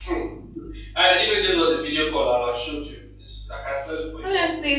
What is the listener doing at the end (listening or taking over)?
taking over